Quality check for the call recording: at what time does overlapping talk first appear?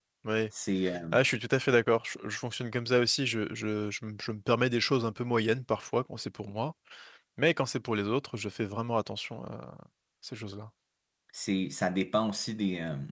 none

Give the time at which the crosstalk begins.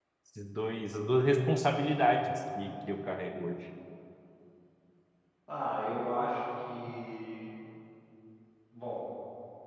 none

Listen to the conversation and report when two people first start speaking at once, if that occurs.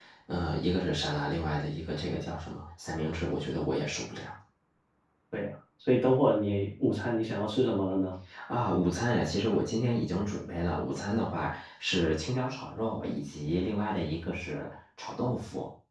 none

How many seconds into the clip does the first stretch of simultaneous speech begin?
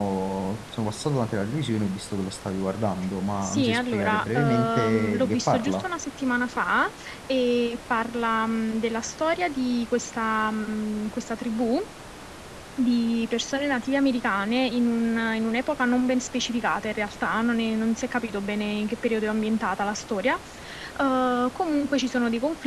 3.4 s

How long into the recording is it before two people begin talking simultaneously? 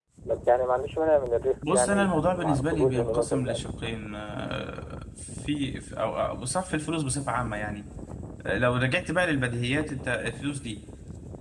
1.6 s

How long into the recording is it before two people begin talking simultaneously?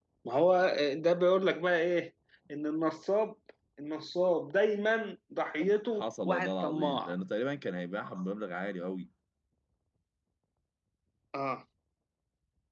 5.6 s

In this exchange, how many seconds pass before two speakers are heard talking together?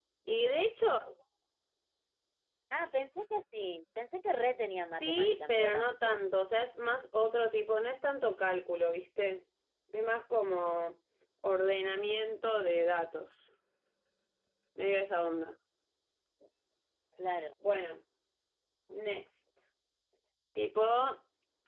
4.9 s

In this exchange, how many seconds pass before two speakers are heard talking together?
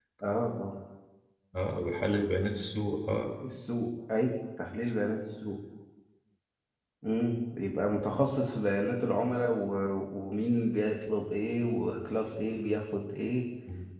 none

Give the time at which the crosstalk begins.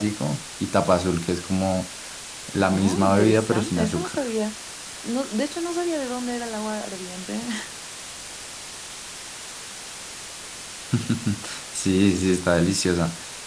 2.6 s

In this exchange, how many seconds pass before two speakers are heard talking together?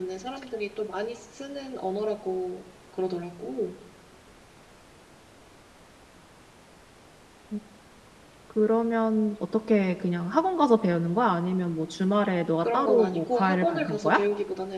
12.6 s

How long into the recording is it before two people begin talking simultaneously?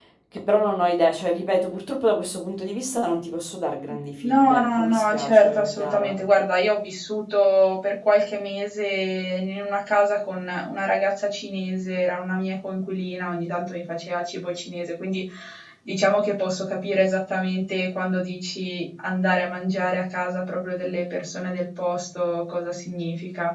4.2 s

